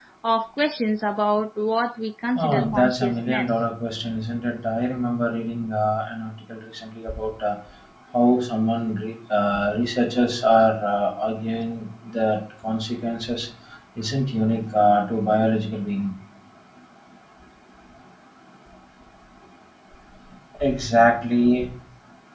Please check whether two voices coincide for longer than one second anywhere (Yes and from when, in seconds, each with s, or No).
Yes, from 2.4 s